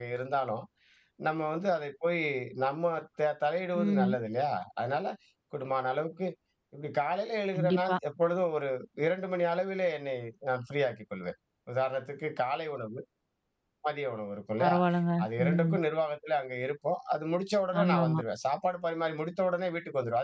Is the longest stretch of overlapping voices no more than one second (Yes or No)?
Yes